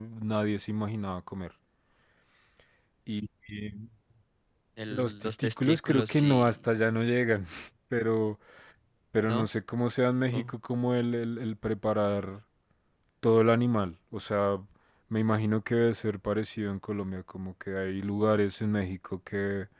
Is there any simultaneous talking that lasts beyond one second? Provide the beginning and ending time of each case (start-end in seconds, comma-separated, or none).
4.9-6.7